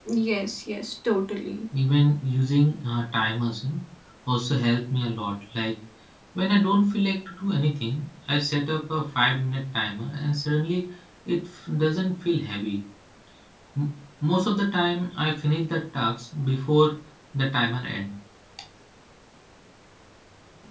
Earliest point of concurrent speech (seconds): none

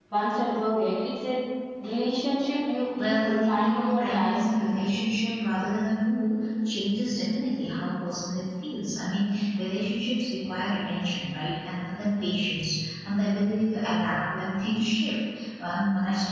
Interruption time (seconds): 3.0 s

